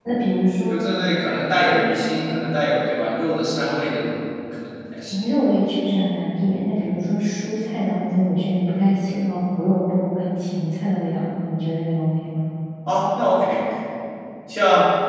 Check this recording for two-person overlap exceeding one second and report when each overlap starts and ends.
none

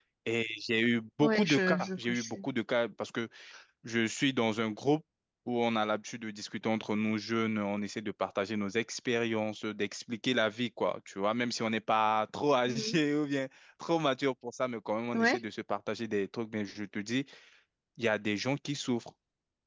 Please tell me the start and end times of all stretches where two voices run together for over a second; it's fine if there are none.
1.2-2.5

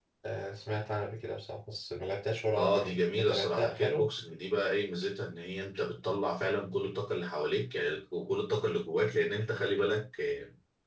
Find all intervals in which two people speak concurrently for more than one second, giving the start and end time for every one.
2.5-4.0

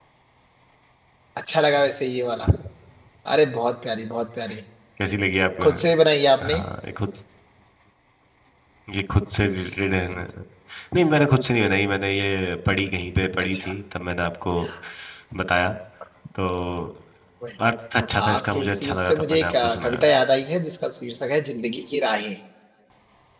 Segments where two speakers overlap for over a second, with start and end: 18.2-20.0

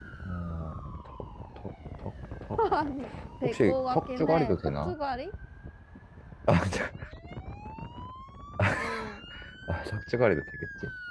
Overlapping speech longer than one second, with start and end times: 3.4-5.0

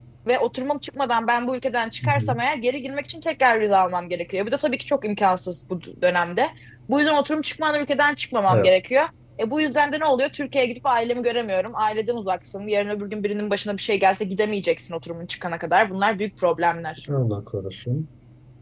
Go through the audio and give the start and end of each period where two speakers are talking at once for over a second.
none

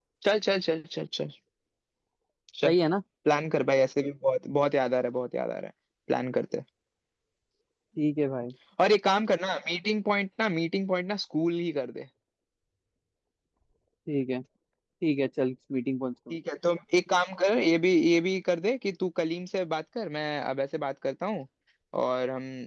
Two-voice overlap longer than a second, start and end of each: none

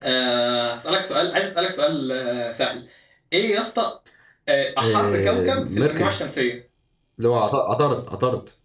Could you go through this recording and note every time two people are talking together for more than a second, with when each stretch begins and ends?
4.8-6.2

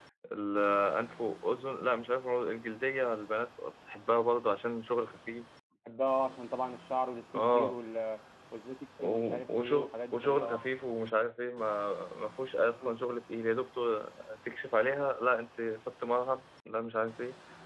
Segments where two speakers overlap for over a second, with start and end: 9.0-10.7

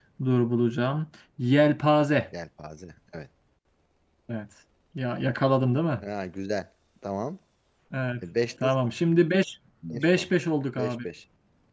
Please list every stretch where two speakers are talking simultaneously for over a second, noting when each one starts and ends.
none

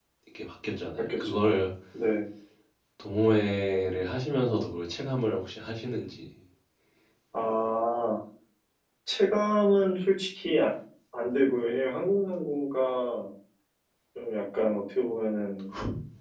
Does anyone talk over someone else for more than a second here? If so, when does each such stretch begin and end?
none

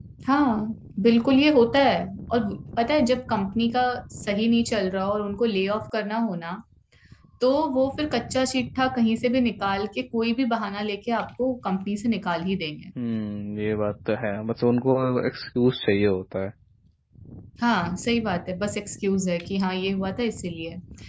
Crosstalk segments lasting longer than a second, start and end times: none

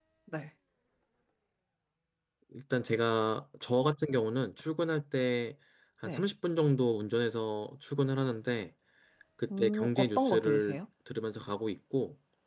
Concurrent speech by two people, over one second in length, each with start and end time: 9.6-10.8

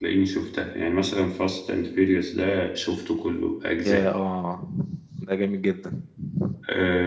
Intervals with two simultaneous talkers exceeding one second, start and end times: none

